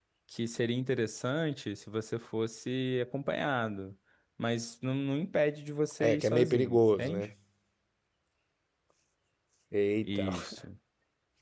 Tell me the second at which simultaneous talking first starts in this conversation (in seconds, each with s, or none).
6.0 s